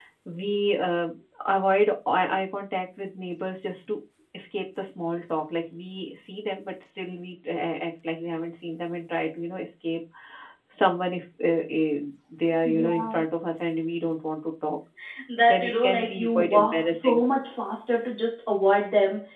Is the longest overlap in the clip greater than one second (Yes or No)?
Yes